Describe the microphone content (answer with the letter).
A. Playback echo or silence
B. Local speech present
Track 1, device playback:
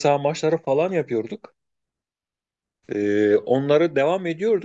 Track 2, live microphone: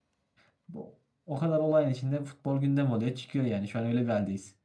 B